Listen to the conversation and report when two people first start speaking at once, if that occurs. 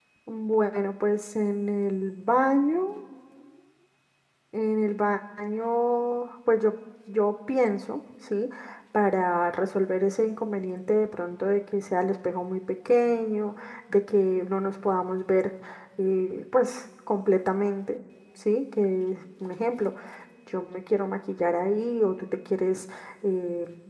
none

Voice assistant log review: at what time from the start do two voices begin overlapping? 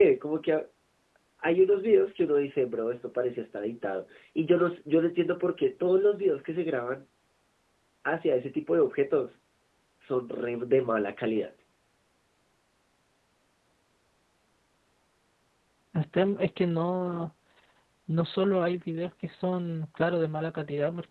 none

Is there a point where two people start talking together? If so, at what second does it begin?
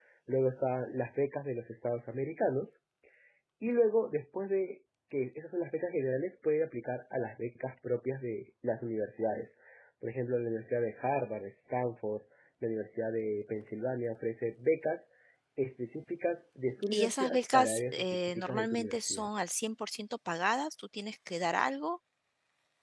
17 s

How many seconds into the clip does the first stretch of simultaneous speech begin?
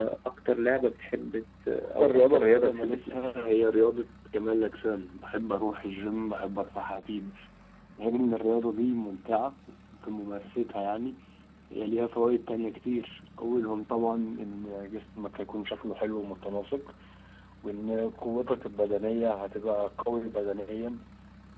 2 s

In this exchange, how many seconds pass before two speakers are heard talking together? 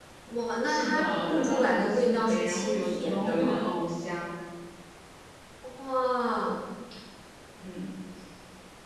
1 s

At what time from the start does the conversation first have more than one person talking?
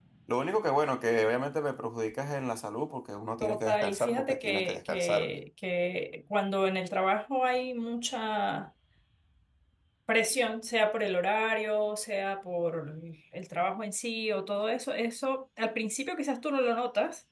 3 s

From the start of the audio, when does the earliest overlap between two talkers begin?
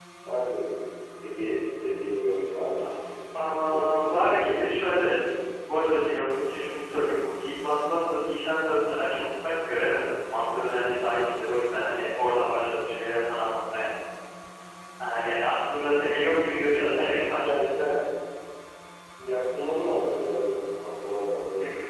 3 s

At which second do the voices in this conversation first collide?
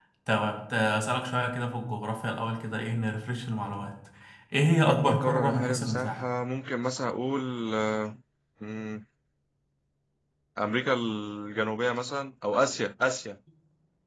5 s

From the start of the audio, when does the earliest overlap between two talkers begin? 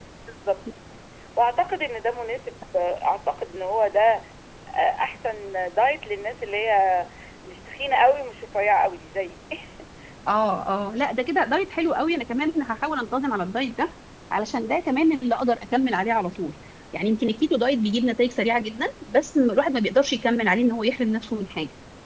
none

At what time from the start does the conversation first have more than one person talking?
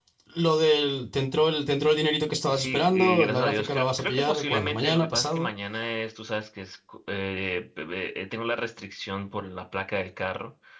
2 s

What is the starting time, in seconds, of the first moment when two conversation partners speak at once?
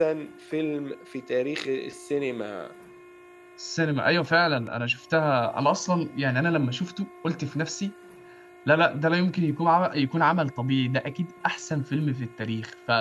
none

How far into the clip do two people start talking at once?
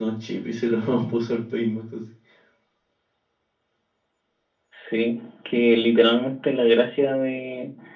none

